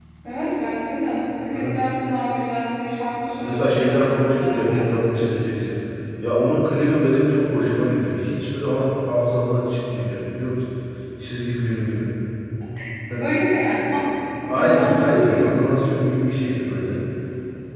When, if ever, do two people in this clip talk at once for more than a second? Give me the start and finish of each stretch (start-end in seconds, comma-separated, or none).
3.4-4.8, 14.6-16.0